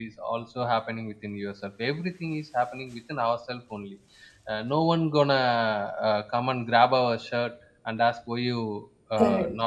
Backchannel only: Yes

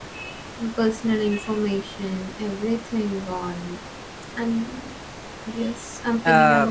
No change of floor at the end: No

